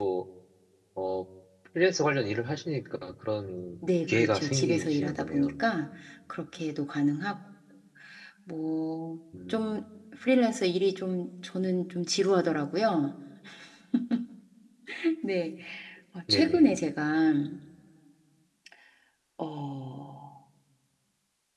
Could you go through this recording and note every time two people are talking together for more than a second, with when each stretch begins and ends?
4.1-5.5

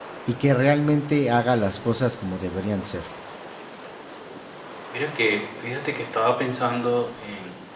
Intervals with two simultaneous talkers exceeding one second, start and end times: none

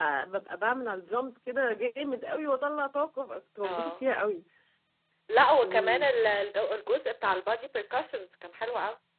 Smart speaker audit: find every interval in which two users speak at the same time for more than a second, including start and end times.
none

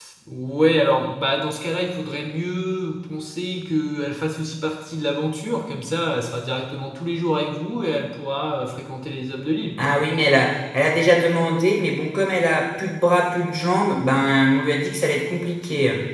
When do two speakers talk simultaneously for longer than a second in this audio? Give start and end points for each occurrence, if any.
none

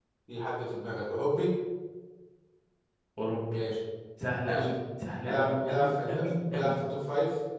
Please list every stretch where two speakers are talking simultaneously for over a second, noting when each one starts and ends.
5.1-6.7

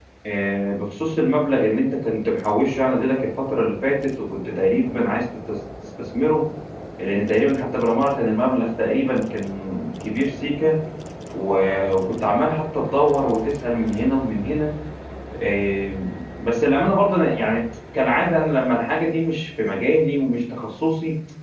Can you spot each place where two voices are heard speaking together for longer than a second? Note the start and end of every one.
none

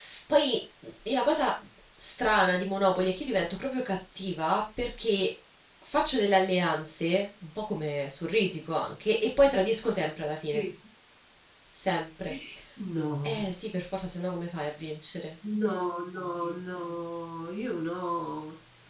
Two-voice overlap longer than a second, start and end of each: none

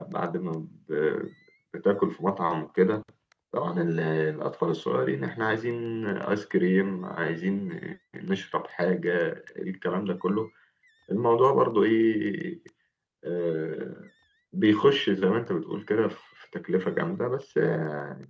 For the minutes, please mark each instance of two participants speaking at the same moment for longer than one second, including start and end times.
none

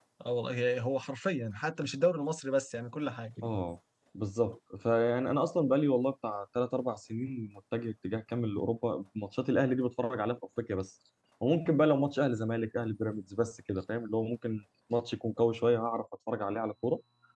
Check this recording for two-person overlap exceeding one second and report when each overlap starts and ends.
none

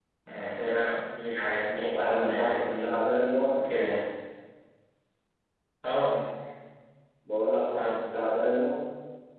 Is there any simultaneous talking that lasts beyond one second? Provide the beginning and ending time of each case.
1.8-3.0

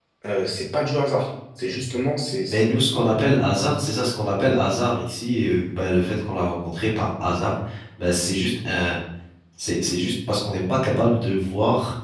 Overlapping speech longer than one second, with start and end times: none

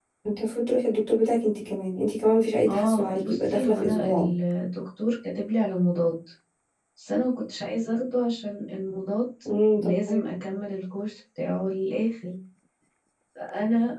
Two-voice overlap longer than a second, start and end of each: 2.7-4.3

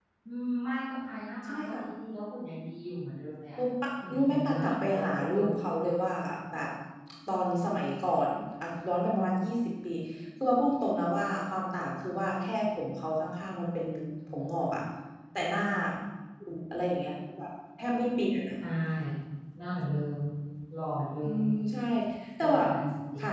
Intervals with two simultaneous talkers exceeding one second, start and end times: 4.1-5.5

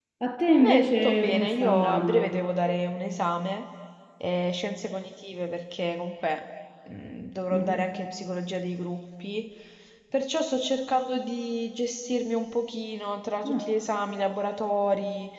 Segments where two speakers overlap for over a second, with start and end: 0.5-2.3

